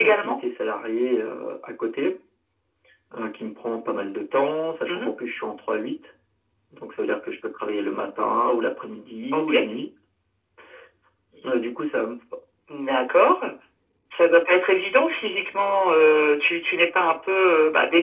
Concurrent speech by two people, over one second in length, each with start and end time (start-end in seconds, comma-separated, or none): none